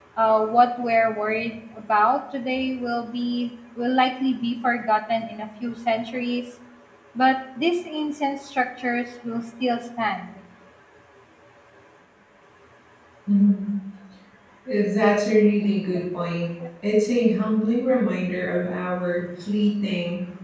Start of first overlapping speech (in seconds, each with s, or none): none